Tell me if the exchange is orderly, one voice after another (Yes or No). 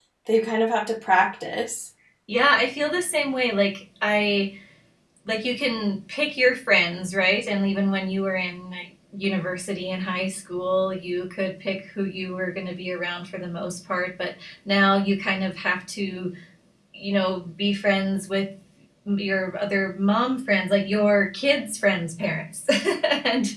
Yes